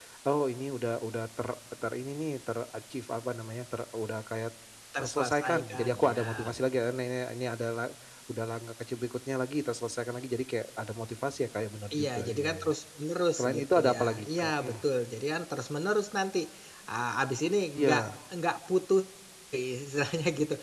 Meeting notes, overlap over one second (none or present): present